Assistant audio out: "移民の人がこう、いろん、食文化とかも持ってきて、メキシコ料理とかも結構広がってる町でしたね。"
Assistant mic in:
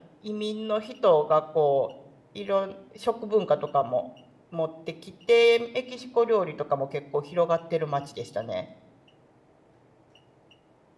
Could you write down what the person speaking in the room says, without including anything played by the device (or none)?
none